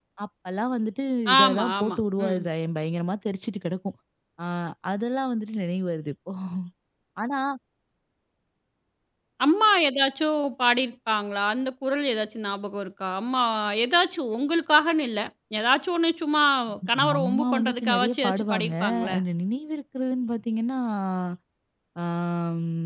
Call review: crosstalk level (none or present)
present